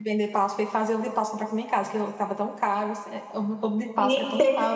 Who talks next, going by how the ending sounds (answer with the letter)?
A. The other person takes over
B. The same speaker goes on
A